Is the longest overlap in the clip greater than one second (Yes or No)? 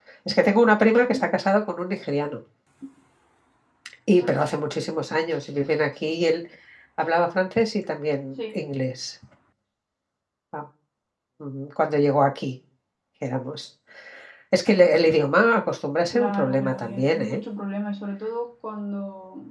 Yes